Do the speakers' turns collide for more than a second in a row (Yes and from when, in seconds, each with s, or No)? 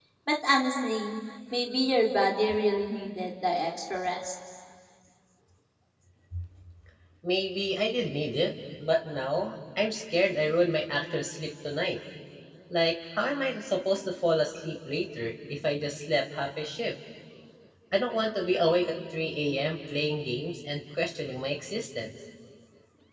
No